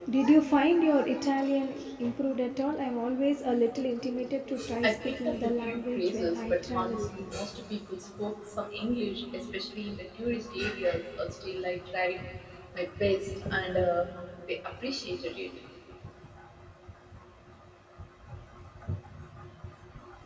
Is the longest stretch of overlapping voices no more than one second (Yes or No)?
No